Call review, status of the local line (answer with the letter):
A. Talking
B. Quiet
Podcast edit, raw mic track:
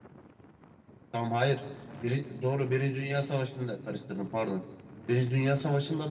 B